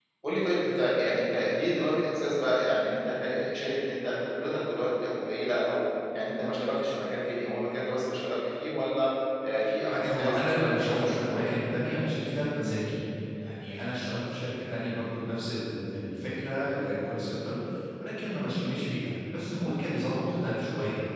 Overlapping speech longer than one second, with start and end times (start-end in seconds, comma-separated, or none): 9.9-11.5